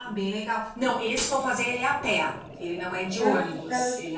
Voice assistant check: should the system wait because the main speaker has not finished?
Yes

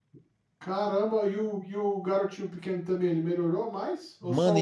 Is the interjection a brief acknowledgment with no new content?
No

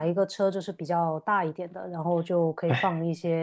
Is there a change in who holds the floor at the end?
No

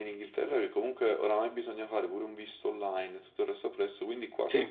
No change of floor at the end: Yes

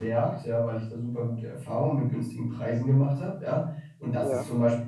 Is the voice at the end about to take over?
No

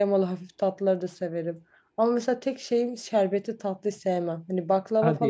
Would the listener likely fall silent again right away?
Yes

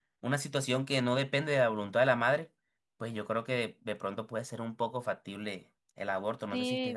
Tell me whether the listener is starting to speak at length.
Yes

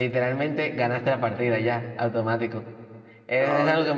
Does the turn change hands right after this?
No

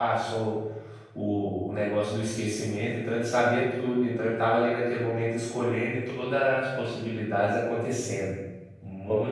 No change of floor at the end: No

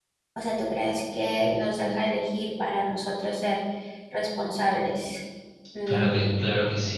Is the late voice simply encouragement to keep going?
No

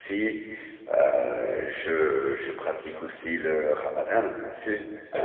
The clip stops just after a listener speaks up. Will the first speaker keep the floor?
Yes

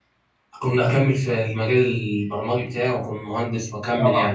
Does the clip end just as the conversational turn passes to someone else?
Yes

